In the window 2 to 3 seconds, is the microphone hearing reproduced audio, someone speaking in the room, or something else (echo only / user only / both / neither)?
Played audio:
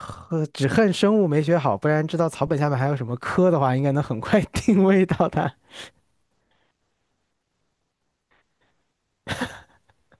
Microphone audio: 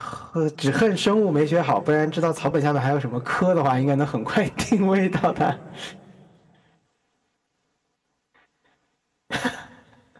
echo only